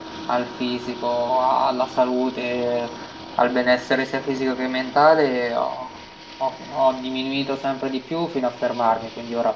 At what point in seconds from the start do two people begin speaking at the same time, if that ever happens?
none

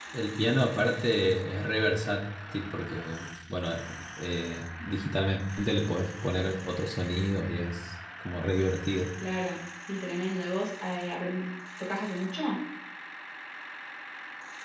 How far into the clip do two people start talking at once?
none

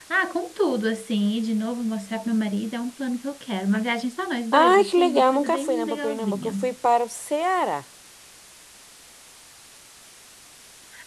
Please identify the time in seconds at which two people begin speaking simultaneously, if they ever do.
4.5 s

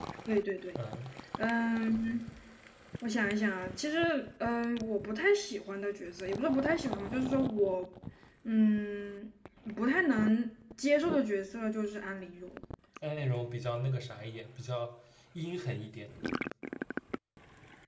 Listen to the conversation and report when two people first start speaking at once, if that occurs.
none

